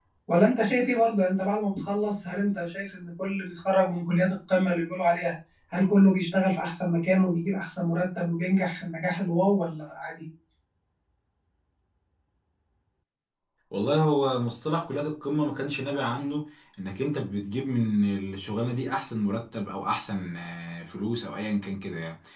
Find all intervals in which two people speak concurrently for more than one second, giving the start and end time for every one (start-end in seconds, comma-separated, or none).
none